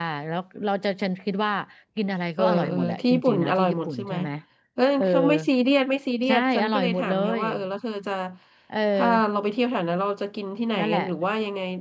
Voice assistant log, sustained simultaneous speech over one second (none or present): present